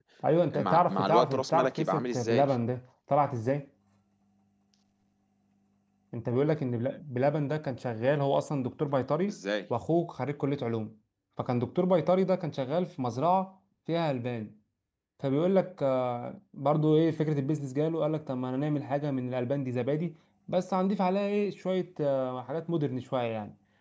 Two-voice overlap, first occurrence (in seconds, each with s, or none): 0.5 s